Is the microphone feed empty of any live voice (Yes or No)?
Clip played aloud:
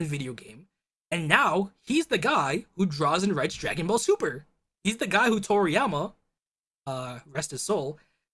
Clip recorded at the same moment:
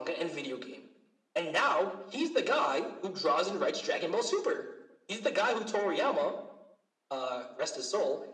Yes